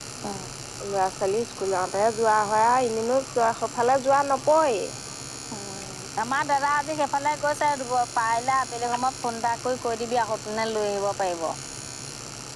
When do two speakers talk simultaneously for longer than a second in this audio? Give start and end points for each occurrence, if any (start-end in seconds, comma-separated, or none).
none